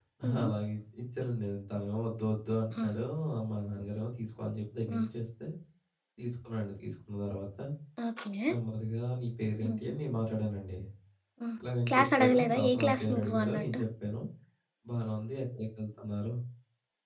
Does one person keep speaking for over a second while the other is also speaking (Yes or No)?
Yes